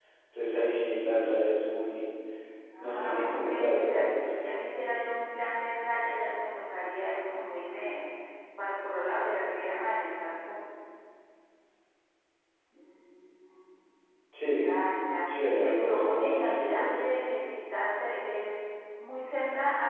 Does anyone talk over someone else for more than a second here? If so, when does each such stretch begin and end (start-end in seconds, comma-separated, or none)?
2.8-4.3, 15.3-16.9